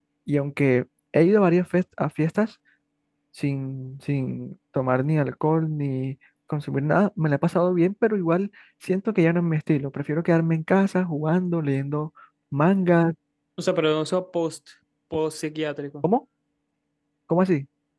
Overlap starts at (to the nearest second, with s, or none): none